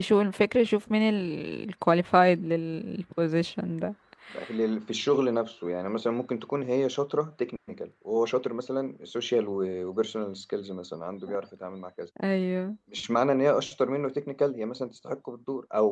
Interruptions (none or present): none